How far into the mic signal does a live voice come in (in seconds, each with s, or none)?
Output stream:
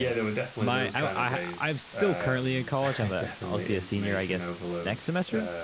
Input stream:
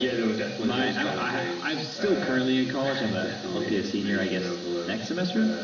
none